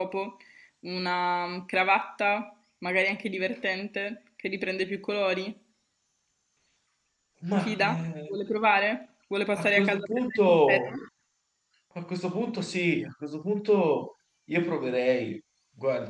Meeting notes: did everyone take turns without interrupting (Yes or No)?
No